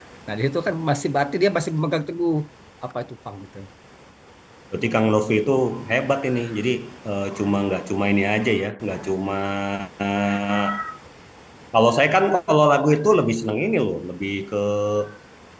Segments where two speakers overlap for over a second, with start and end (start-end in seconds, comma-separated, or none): none